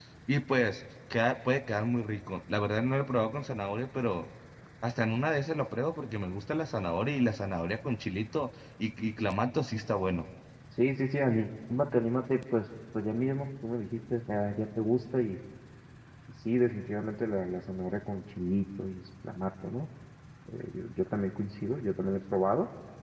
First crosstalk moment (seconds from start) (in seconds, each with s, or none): none